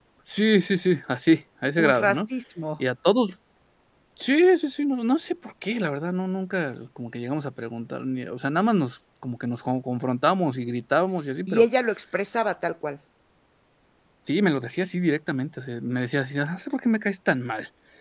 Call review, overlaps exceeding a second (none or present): none